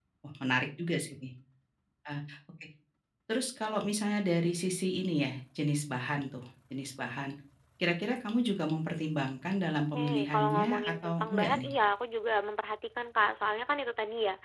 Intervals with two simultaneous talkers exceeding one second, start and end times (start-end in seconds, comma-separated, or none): 9.6-11.7